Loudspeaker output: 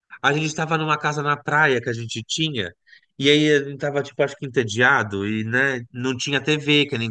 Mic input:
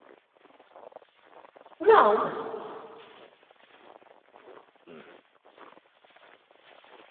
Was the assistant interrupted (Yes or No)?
Yes